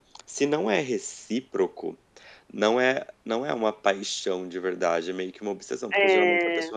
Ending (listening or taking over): listening